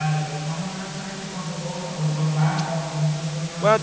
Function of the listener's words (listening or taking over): taking over